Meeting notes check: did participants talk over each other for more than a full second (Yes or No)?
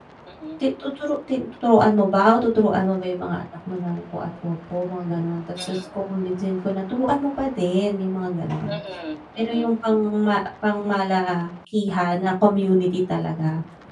No